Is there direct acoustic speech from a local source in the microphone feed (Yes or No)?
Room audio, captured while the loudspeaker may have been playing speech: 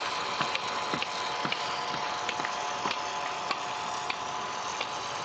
No